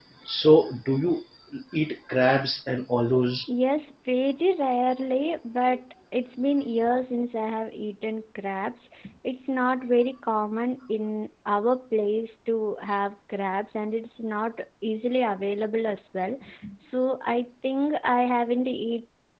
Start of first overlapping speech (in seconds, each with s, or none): none